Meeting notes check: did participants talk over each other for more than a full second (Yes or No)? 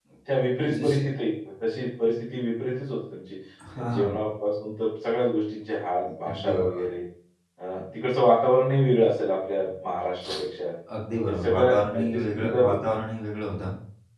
Yes